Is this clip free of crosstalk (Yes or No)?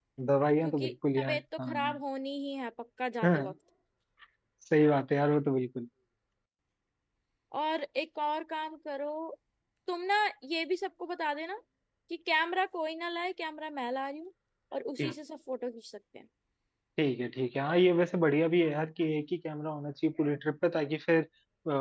No